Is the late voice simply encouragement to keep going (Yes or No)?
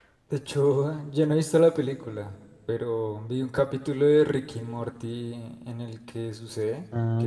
Yes